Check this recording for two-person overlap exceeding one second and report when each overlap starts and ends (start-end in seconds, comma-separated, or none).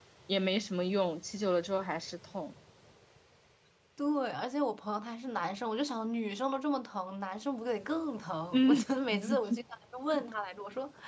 none